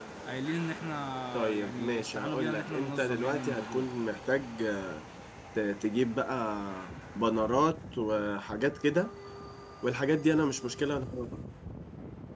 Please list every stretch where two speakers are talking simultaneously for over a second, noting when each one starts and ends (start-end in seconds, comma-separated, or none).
1.3-3.9